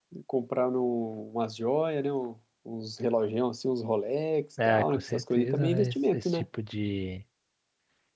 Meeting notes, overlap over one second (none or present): present